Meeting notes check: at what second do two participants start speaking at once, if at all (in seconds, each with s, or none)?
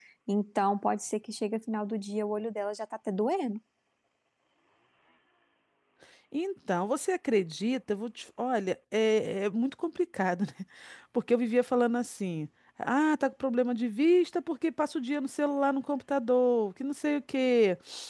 none